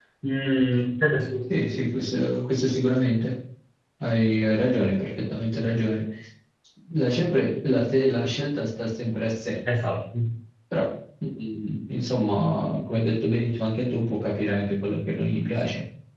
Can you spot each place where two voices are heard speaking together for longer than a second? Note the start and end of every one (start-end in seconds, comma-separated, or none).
none